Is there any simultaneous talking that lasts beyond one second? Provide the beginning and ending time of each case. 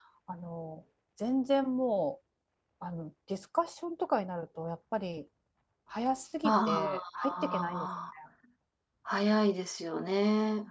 6.4-7.9

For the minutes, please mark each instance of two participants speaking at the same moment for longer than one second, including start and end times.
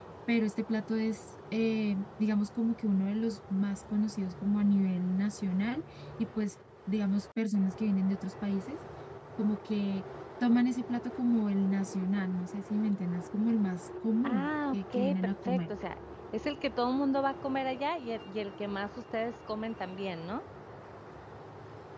14.2-15.7

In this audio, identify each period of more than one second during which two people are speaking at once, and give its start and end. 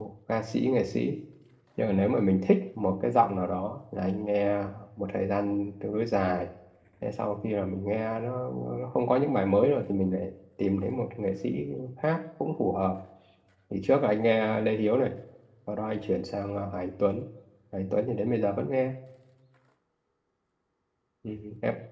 none

